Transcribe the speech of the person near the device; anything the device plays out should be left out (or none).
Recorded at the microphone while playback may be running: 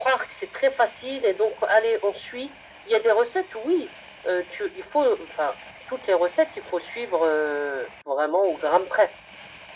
none